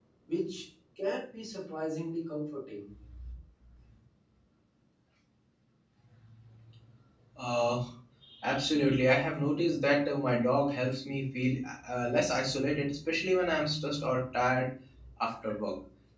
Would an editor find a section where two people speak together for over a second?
No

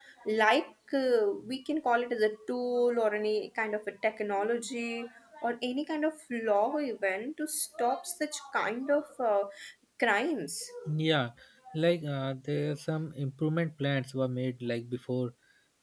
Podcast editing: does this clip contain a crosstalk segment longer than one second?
No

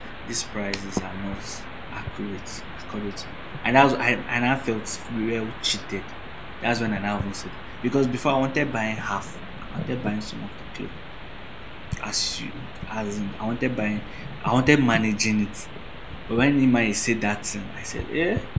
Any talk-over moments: No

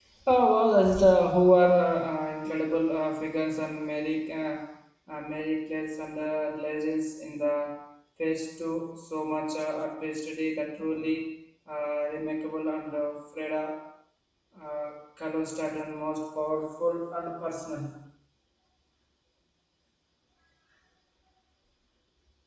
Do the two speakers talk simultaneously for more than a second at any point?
No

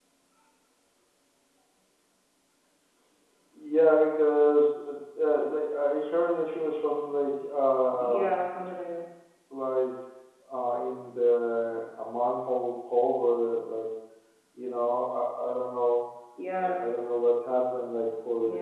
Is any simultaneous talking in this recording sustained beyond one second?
No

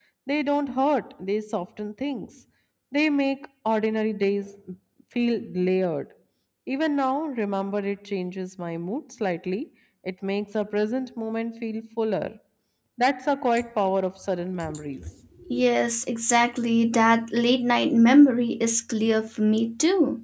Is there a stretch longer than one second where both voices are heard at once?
No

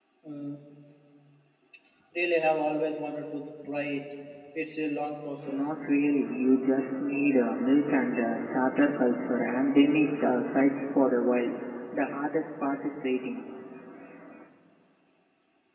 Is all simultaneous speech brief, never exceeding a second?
Yes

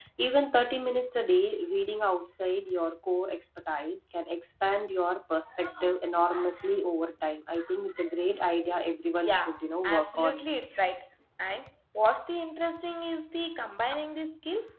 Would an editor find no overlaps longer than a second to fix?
No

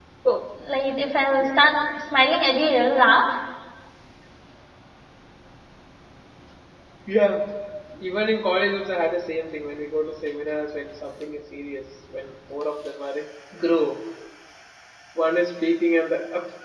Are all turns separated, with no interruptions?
Yes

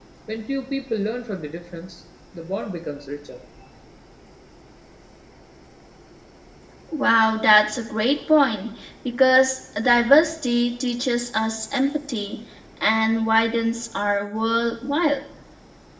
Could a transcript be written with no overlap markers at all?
Yes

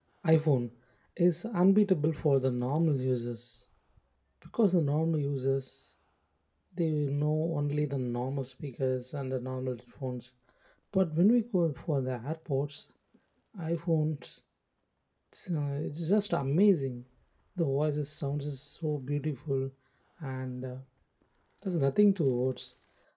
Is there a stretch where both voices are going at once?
No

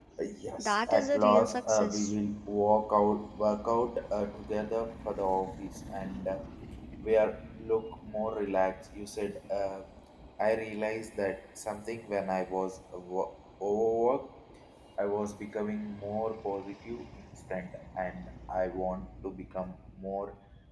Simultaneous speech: Yes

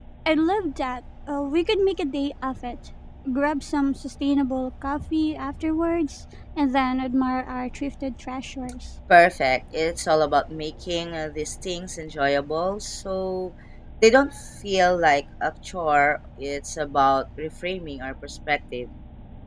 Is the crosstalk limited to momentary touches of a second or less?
Yes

